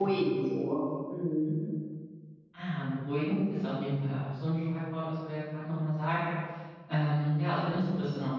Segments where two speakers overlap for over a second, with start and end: none

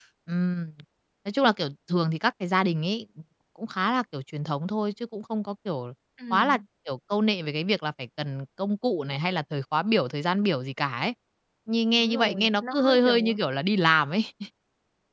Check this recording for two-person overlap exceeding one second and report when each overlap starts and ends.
11.9-13.4

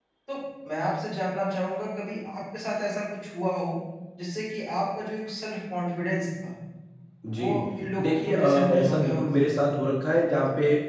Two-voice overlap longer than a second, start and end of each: 8.0-9.3

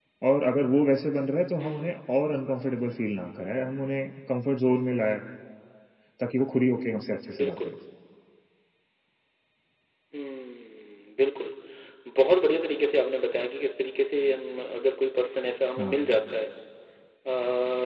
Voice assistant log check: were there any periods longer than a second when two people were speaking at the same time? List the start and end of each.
none

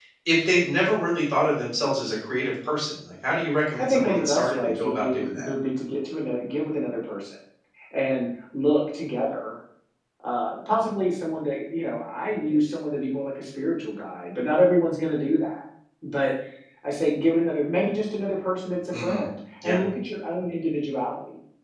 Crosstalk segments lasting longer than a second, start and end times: 3.8-5.5

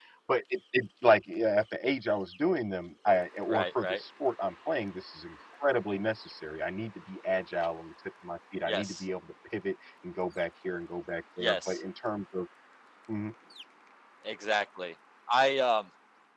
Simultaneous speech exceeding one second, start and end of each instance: none

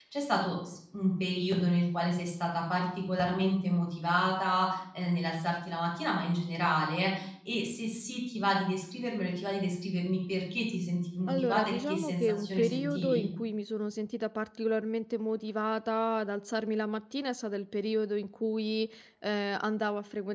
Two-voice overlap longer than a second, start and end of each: 11.3-13.3

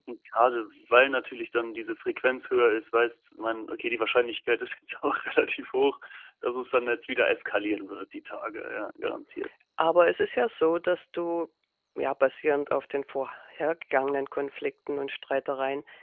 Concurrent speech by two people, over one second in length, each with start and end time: none

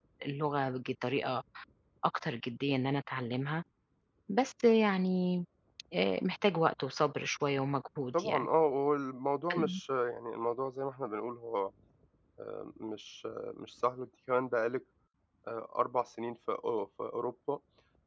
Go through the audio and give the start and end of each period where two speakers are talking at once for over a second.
none

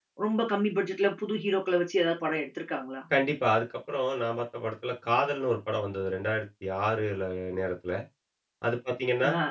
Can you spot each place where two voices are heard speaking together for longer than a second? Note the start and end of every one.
none

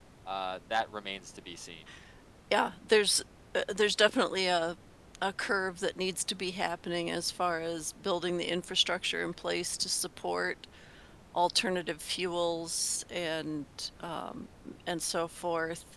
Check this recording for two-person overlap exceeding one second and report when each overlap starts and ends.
none

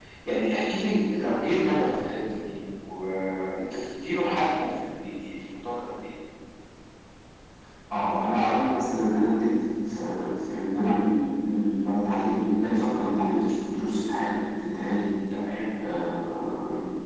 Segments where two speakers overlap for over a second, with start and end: none

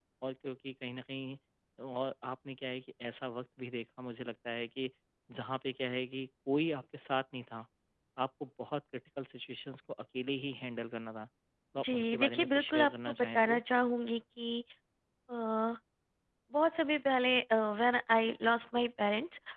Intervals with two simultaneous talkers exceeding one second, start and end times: 11.9-13.6

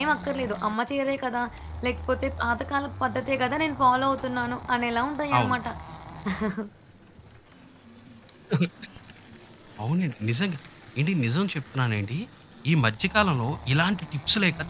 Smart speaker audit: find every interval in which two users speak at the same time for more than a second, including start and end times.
none

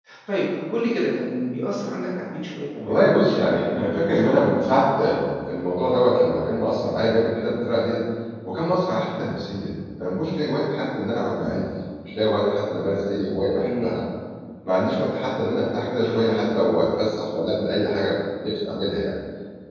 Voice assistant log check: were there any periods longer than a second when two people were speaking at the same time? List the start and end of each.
2.8-4.6

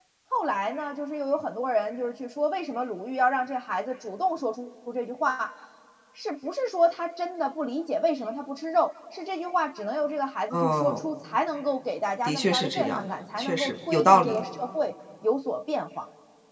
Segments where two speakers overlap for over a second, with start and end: 12.2-14.4

